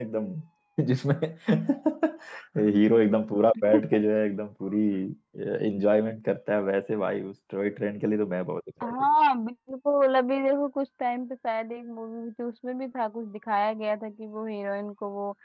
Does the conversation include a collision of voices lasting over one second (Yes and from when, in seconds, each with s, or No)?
No